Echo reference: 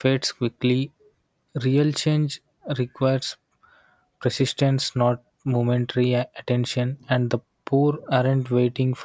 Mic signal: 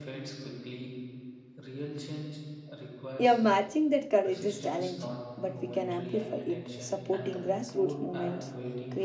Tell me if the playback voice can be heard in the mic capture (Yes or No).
Yes